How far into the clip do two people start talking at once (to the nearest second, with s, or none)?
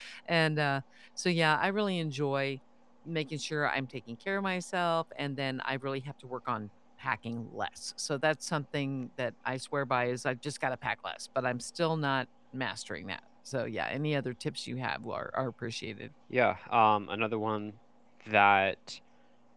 none